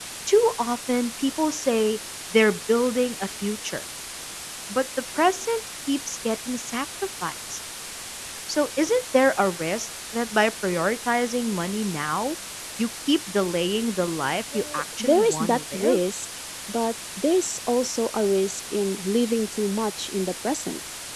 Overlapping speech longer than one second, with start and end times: 14.5-16.0

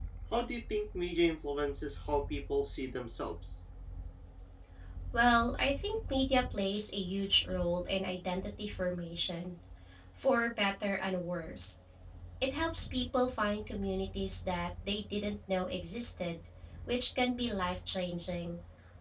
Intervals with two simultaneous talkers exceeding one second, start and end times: none

